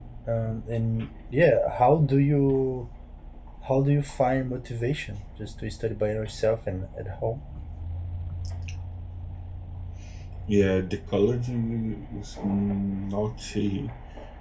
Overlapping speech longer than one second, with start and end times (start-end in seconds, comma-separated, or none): none